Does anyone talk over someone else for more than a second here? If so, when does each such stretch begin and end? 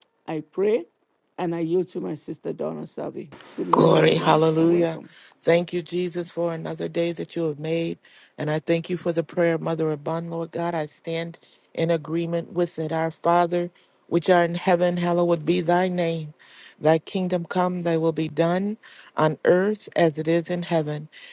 3.7-5.0

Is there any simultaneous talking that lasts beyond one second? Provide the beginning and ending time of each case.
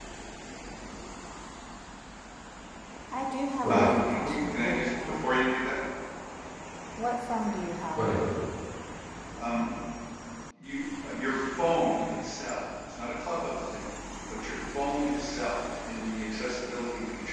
3.6-5.3

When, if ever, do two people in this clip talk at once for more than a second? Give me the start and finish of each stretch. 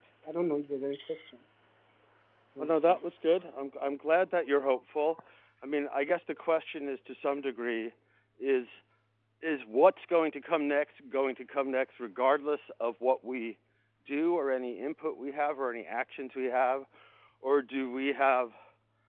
none

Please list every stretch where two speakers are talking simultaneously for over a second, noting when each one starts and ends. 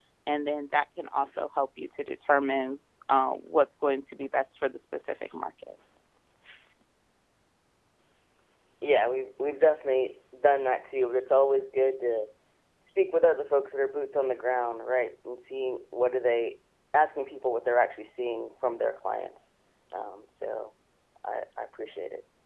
none

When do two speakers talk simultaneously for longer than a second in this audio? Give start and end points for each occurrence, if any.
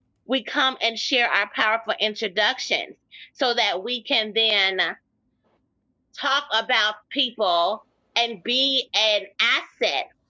none

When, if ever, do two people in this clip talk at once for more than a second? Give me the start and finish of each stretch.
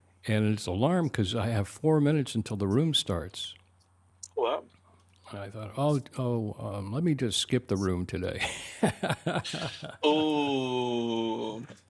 none

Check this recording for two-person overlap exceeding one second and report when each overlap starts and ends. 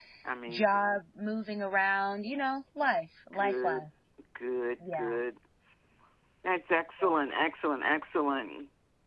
none

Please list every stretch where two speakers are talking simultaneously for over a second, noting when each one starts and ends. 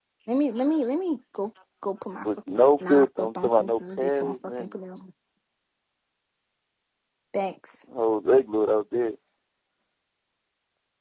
2.2-4.8

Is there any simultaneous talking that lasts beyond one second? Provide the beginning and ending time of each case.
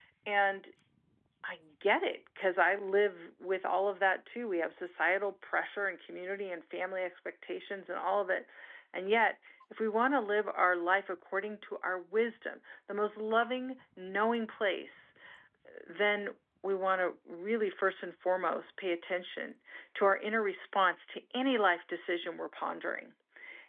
none

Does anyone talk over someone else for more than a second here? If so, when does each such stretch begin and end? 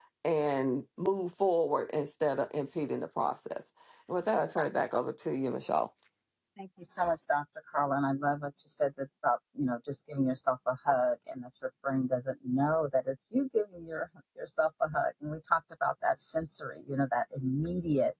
none

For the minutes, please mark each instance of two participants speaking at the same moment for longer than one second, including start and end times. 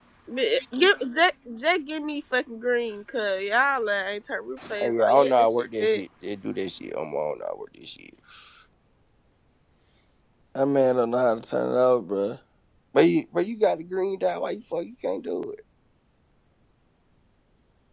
4.8-6.0

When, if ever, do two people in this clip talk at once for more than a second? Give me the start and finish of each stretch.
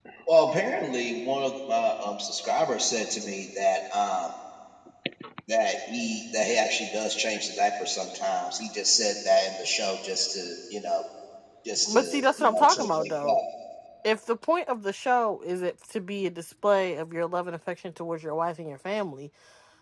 11.9-13.4

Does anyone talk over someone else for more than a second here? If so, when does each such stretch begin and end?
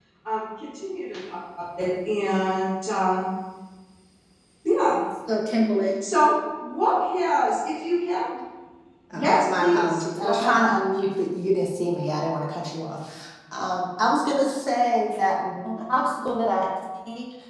9.2-10.6

